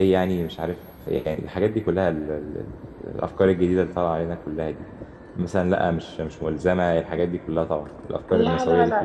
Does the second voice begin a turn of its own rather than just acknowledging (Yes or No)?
Yes